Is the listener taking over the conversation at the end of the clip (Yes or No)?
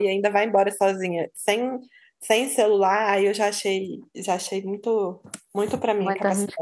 Yes